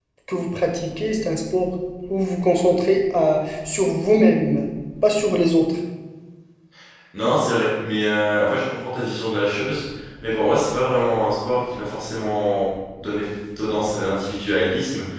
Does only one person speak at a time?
Yes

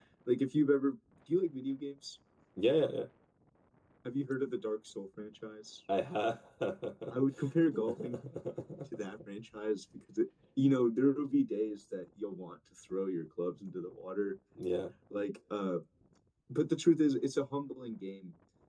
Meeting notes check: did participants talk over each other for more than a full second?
No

